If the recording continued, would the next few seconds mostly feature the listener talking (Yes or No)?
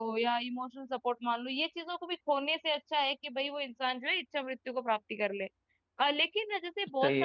No